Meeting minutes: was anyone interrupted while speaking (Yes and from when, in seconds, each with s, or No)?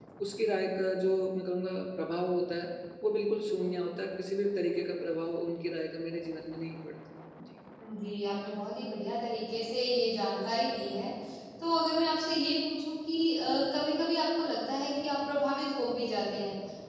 No